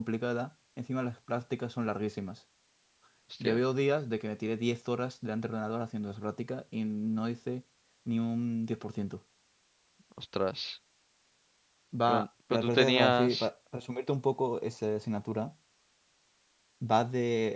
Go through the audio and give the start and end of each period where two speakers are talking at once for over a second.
12.1-13.5

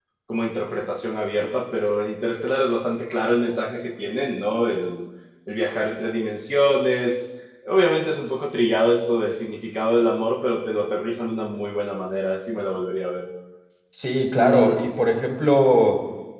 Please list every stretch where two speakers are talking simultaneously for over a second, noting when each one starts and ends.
none

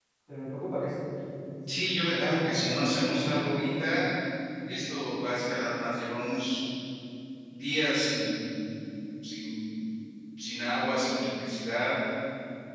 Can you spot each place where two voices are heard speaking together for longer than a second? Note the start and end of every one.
1.7-3.4

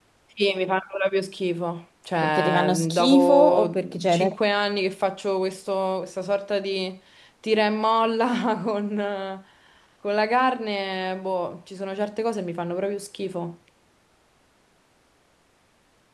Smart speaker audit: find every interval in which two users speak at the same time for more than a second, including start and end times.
2.2-4.2

